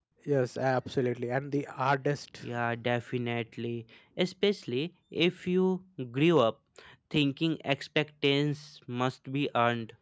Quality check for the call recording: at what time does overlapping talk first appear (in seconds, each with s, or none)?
none